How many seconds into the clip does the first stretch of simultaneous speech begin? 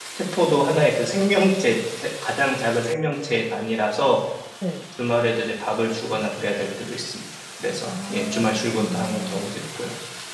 8 s

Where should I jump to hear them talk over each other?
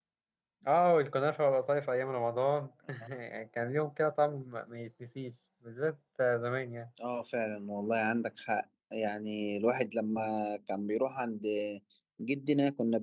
none

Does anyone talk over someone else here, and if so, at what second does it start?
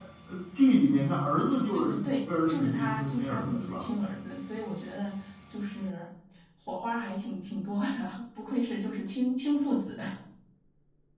2 s

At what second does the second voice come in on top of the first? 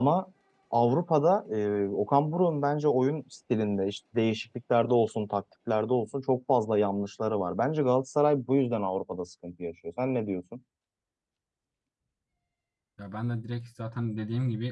none

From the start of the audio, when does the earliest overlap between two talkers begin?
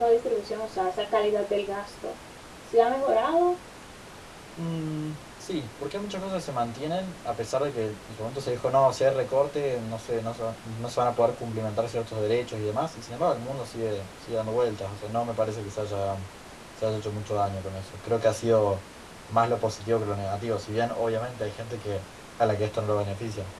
none

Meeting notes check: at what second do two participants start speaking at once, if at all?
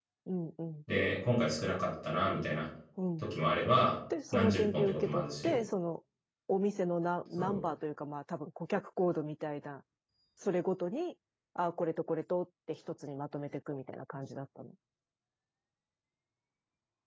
4 s

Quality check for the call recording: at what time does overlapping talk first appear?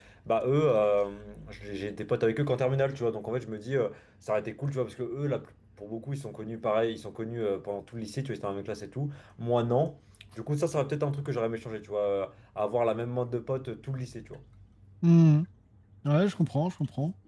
none

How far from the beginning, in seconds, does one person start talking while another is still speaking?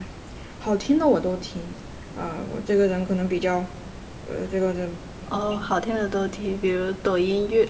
none

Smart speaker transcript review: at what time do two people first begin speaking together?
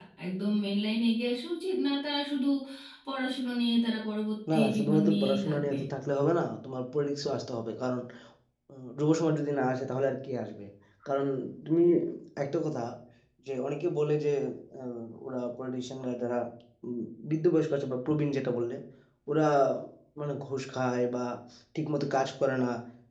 4 s

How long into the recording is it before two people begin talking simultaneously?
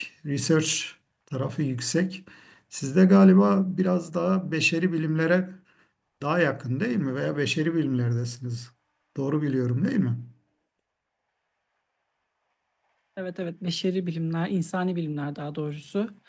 none

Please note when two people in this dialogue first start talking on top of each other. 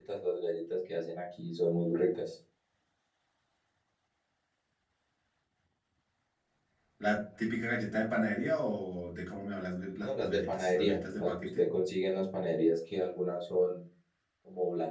10 s

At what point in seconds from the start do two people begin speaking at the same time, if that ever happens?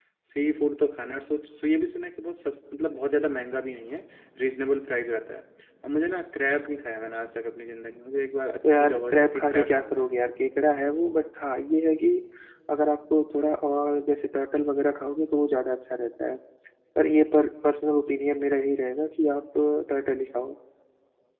9 s

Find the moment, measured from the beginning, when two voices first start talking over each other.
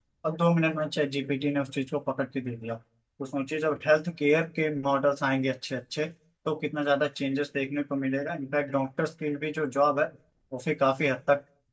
none

